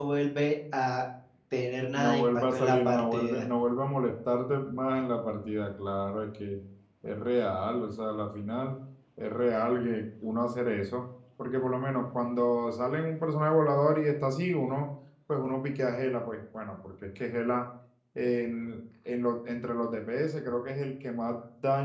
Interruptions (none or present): present